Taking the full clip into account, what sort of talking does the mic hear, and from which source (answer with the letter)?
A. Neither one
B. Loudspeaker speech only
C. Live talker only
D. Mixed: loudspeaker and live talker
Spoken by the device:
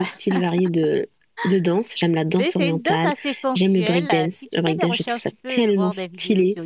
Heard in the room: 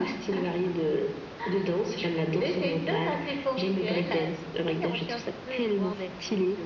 B